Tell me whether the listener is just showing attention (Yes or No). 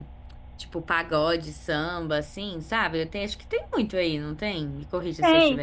No